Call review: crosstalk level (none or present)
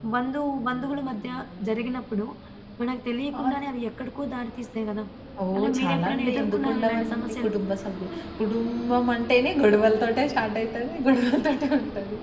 present